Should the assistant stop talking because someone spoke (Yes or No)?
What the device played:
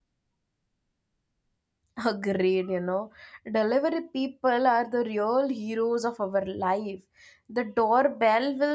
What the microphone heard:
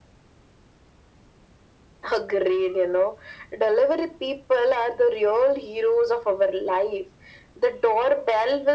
No